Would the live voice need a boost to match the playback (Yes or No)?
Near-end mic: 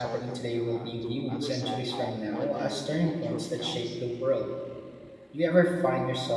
No